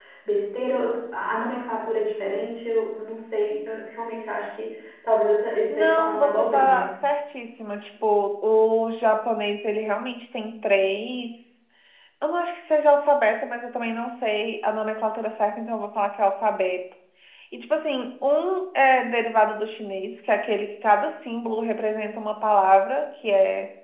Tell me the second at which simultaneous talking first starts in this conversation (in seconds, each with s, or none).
5.7 s